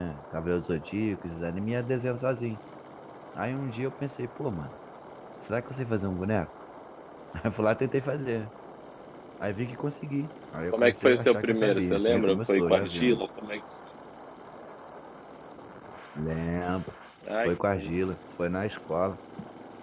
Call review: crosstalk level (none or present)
present